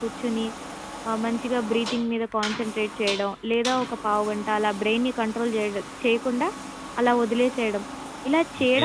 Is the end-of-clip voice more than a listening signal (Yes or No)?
No